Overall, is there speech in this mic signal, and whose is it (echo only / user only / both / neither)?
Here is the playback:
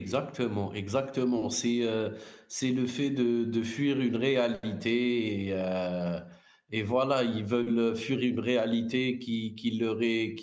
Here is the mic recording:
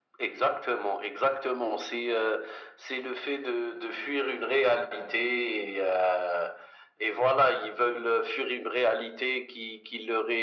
echo only